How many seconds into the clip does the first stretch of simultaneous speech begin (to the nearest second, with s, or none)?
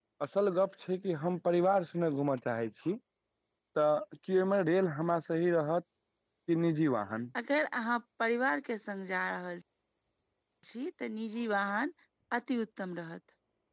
none